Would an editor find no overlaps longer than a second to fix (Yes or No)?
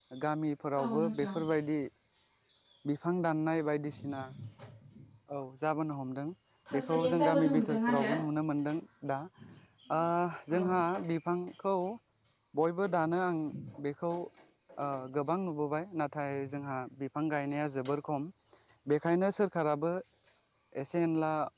No